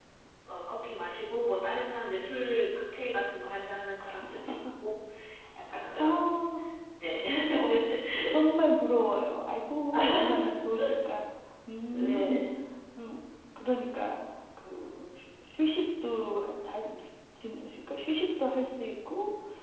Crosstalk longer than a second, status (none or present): none